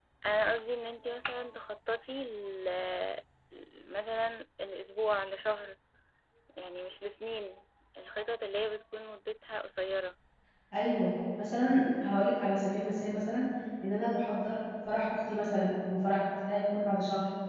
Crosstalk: none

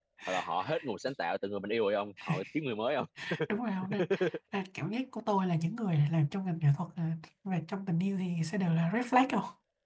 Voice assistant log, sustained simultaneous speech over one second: none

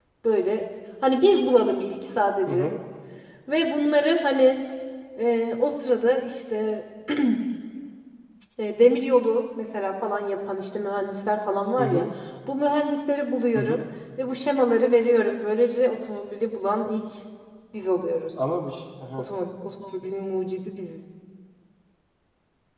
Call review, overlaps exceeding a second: none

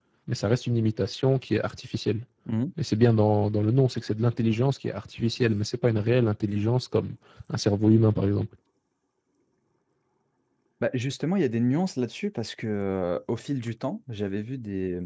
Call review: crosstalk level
none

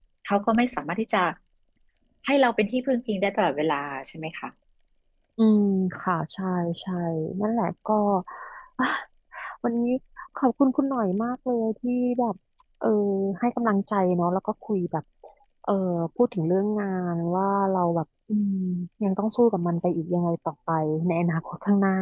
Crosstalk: none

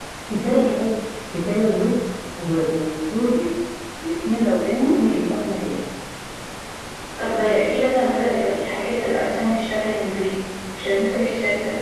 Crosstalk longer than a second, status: none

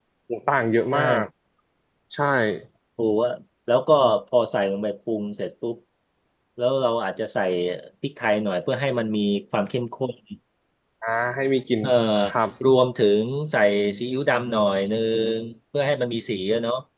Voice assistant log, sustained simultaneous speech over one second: none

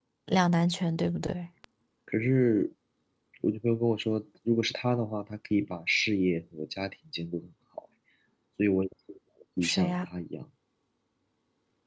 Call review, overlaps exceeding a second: none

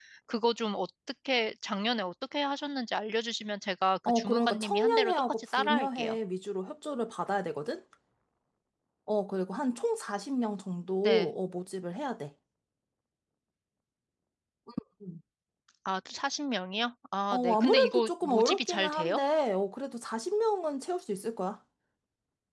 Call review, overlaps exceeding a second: present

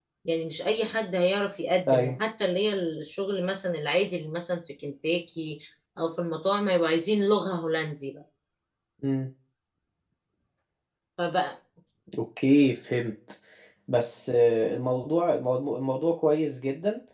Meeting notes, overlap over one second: none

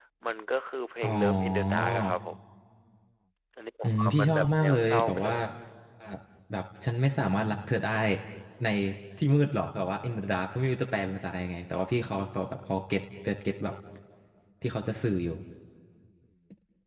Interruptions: present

